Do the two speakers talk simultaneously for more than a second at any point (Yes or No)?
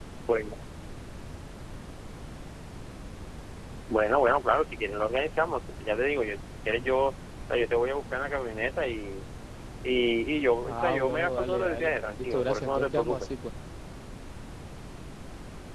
Yes